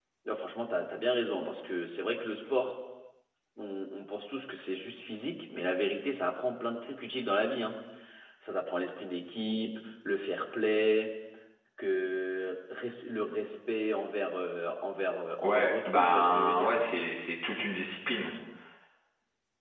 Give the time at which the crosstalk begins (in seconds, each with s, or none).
15.4 s